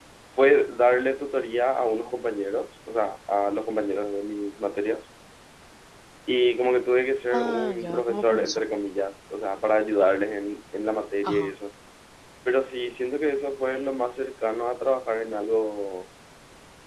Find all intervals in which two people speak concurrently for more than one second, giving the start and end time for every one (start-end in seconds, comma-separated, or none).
7.3-8.6